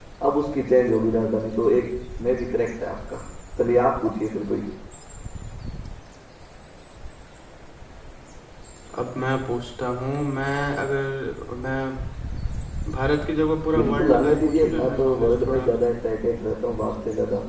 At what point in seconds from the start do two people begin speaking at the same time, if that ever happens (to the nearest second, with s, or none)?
14 s